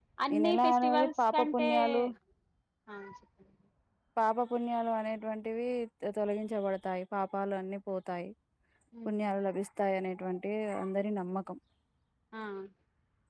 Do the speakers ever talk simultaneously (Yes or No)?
Yes